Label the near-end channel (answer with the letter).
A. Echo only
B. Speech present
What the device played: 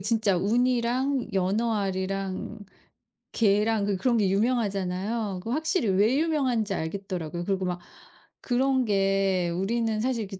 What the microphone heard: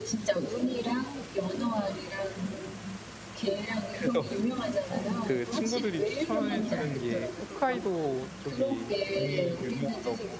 B